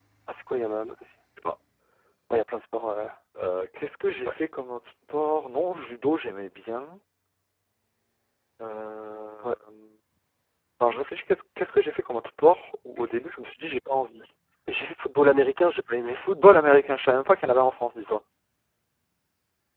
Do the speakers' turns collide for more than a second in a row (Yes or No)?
No